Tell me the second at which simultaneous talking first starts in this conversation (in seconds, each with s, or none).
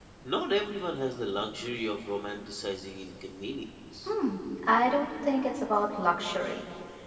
none